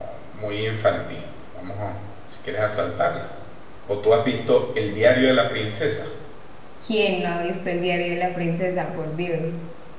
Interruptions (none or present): none